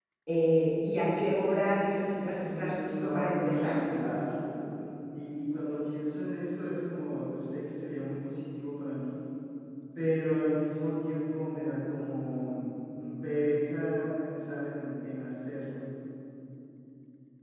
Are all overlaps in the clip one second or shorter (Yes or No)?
No